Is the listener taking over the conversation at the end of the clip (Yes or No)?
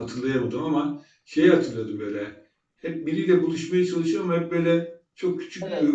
No